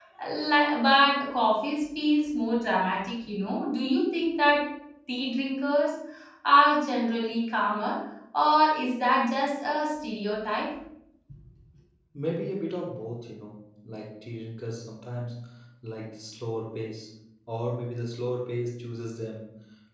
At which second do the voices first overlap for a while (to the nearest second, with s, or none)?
none